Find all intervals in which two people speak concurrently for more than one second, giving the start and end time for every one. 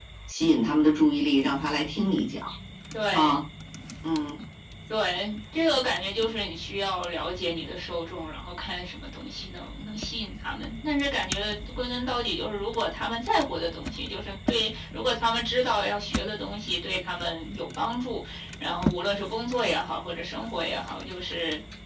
none

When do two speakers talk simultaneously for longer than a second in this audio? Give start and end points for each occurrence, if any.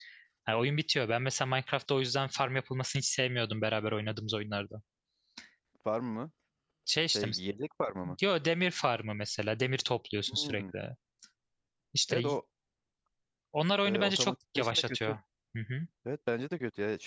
13.8-15.2

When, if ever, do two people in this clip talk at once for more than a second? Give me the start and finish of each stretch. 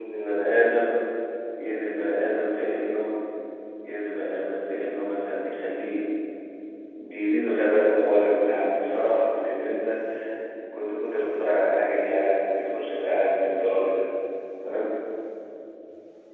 none

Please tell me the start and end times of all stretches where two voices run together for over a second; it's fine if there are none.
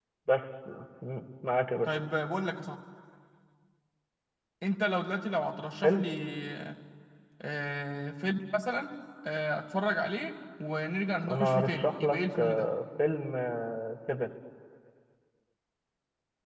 11.3-12.7

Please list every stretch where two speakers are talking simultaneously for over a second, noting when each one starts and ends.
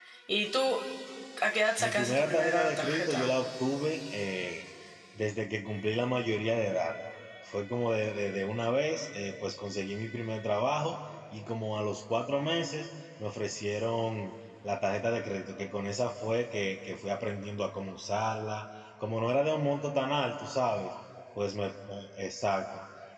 1.8-3.3

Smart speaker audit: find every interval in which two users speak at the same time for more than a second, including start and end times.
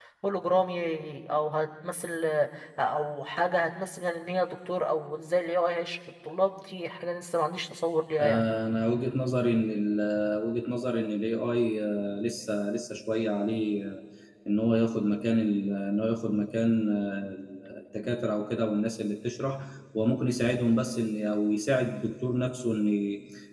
none

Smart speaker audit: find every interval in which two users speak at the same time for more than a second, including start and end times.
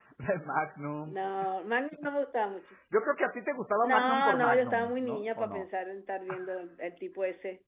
3.8-5.6

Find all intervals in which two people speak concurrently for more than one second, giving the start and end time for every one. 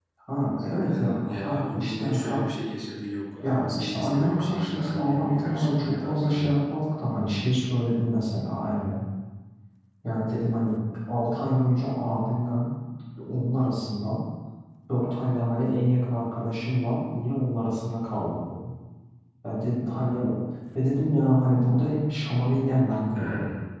0.8-2.5, 3.4-6.6

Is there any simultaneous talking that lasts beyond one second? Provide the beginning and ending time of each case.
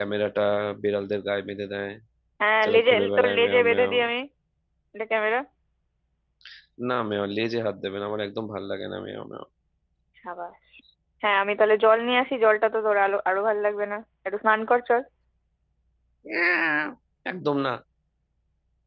2.6-3.9

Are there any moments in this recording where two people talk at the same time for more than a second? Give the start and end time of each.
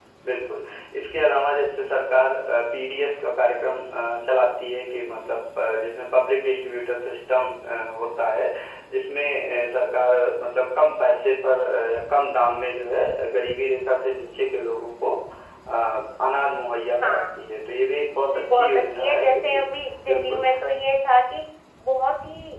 18.2-19.6

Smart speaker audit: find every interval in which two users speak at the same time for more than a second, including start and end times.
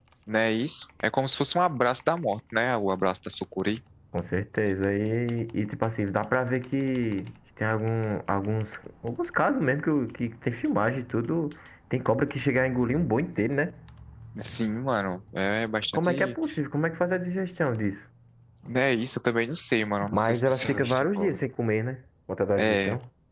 20.1-21.4

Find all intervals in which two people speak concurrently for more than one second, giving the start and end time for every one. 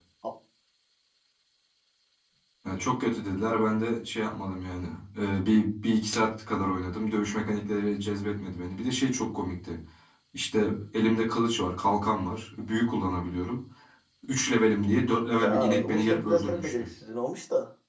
15.4-16.7

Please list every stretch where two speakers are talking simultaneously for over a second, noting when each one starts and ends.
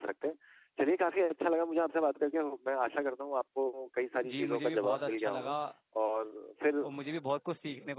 4.3-5.5

